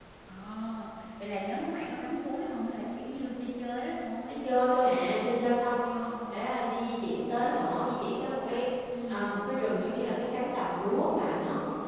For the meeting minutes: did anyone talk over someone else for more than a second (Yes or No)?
No